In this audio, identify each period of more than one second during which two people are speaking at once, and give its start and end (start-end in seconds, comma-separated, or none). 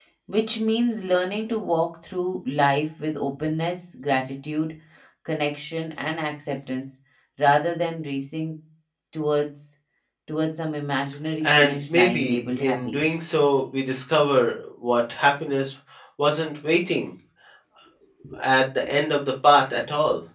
11.4-13.0